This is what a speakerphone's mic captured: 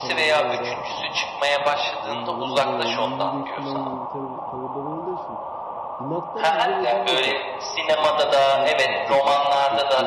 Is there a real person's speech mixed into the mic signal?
Yes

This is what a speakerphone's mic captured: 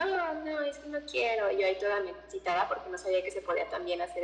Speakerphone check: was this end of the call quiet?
Yes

